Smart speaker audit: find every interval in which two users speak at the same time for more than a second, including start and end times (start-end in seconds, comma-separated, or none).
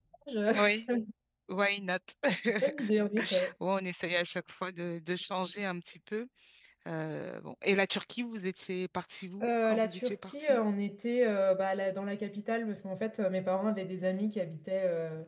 9.4-10.6